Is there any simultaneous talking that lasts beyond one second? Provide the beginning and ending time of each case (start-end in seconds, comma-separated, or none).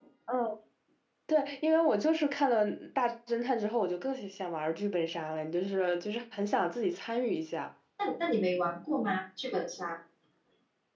none